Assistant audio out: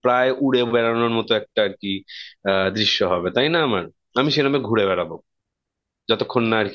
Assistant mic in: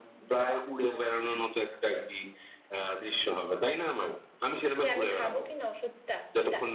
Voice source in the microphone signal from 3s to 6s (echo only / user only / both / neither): both